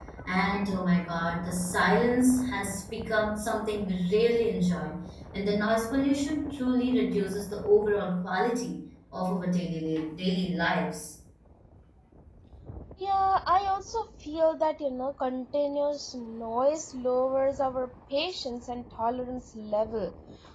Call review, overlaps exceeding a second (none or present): none